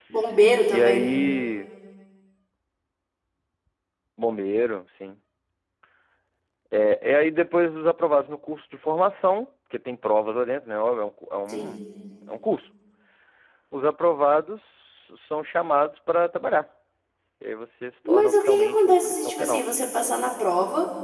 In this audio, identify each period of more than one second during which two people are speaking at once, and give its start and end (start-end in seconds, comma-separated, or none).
18.1-19.6